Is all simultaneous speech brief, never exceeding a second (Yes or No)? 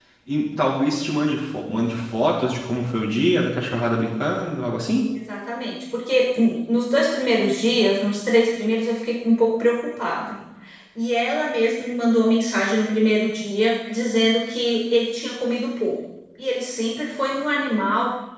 Yes